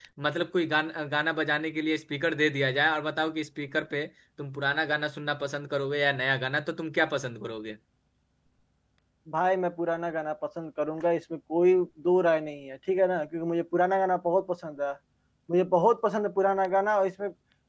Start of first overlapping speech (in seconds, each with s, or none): none